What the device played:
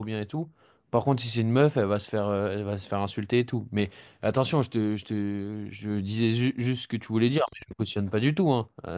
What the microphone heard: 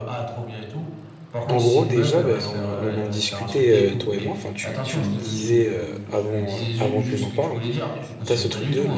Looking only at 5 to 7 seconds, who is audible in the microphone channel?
both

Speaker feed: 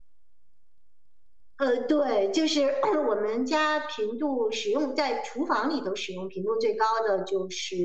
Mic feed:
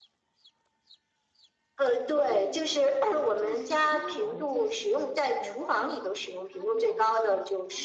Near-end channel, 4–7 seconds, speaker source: both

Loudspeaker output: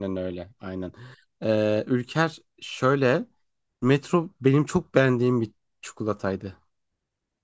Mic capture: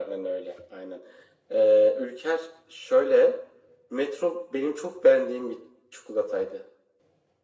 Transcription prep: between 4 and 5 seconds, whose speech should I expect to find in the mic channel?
echo only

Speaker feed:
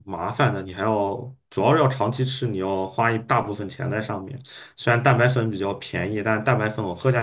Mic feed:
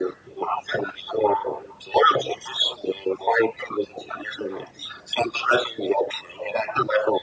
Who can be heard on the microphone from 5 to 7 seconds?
echo only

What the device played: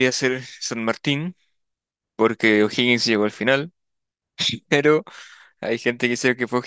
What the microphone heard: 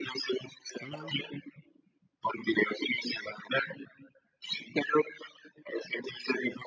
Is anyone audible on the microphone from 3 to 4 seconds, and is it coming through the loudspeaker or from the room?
echo only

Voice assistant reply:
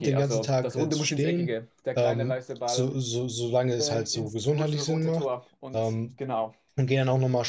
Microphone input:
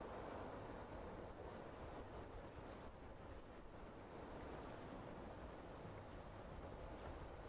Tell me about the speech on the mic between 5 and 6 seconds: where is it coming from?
neither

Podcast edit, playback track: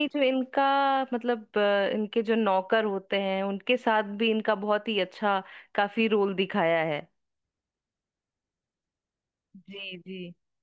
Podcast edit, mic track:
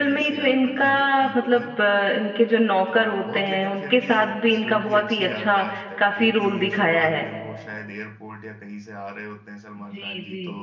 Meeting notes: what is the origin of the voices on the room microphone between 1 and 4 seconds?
both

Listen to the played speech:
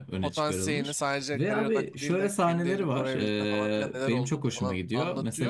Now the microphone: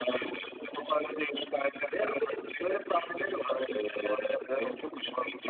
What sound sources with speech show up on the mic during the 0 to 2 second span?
echo only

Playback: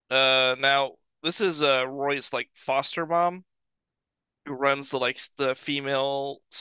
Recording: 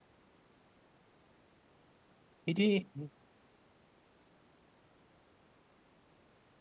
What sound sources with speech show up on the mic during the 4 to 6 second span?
neither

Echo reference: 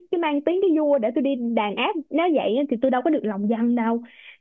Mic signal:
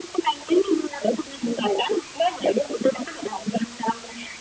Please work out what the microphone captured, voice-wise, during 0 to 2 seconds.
echo only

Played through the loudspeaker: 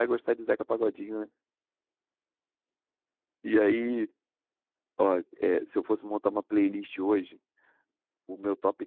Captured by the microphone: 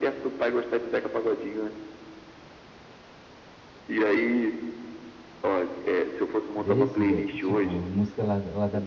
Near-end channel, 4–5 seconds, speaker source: echo only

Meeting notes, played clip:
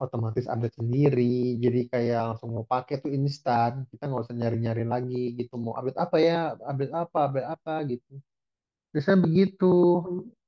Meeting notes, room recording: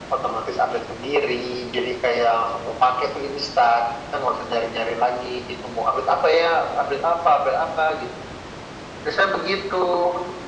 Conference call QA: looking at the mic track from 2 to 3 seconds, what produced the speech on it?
echo only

